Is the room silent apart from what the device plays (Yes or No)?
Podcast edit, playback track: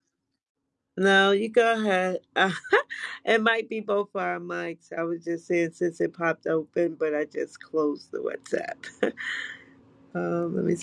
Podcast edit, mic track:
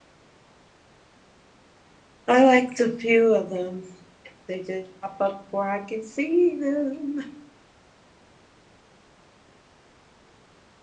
No